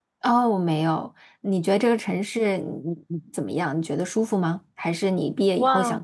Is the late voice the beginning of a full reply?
Yes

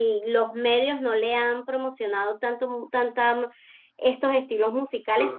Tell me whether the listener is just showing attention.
Yes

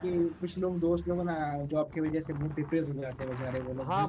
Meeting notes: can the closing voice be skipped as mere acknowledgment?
No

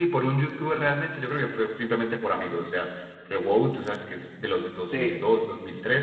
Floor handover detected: No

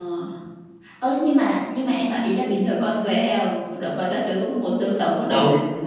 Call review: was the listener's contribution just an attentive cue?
No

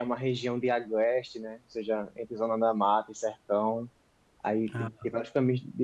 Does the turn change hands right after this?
No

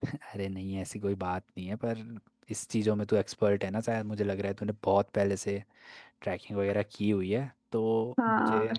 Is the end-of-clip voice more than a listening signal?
Yes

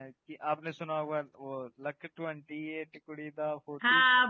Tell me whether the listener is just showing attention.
No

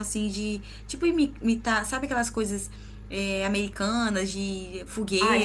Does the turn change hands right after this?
Yes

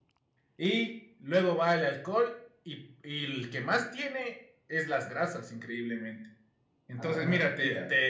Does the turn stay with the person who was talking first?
Yes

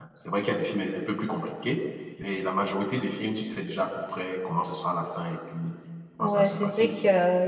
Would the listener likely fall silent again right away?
No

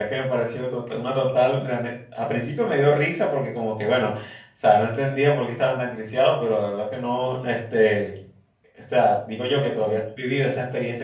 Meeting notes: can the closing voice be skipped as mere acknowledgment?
Yes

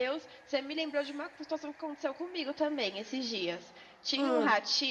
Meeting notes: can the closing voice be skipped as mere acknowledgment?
Yes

